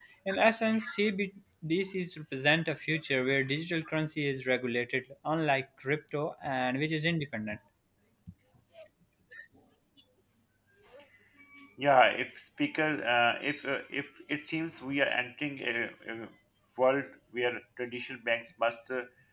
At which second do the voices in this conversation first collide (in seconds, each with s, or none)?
none